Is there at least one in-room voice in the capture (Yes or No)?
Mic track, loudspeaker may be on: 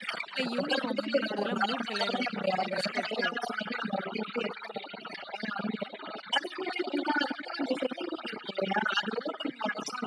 Yes